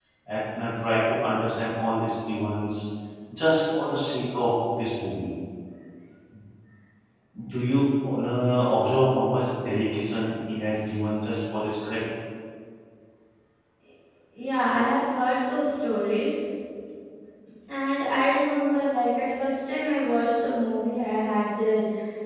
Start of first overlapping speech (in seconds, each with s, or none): none